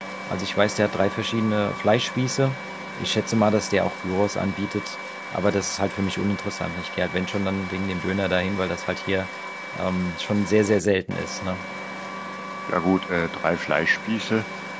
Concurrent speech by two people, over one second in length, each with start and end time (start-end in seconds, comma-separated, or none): none